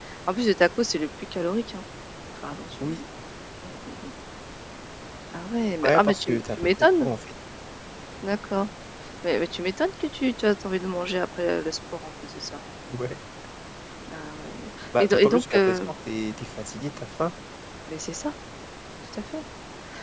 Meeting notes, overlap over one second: present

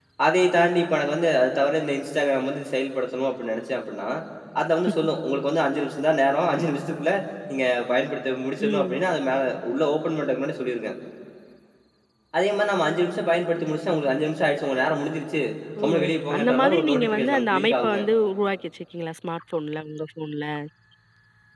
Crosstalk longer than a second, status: present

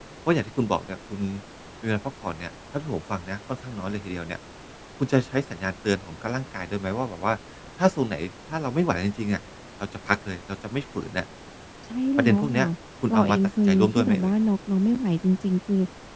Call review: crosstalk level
present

